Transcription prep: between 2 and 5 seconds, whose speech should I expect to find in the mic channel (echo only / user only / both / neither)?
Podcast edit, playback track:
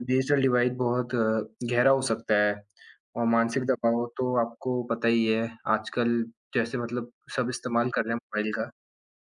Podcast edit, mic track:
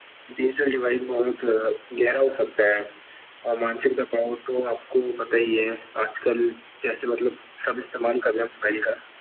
echo only